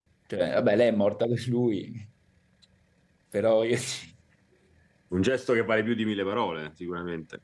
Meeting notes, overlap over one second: none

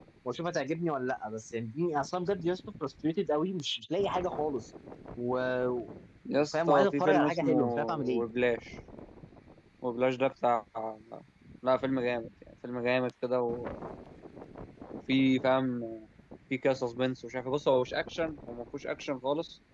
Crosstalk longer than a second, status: present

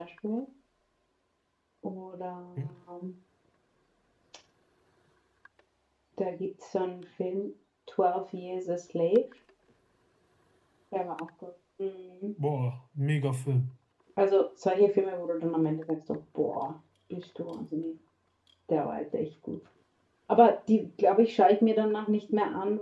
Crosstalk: none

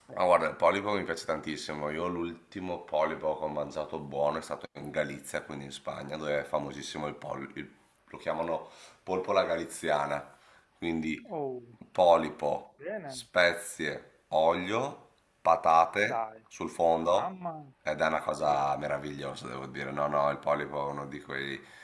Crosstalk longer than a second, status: none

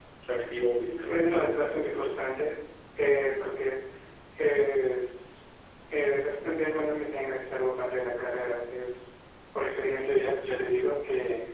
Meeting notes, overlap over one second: present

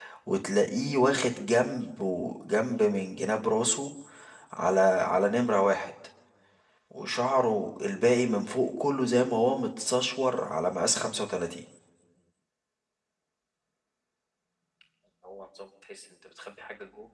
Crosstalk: none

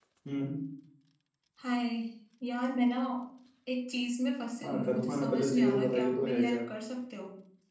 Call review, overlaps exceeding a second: present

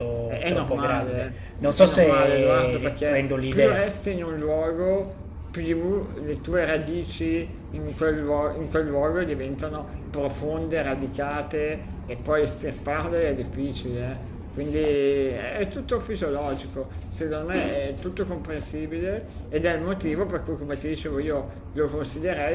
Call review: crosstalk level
present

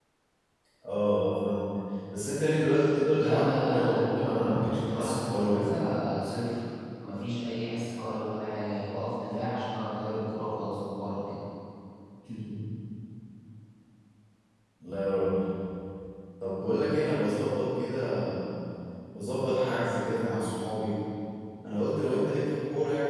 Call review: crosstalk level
present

